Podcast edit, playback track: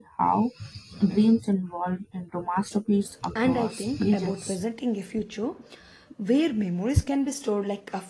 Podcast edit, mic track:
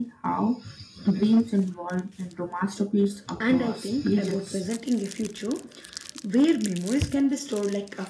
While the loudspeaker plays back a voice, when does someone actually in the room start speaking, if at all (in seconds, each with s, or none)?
none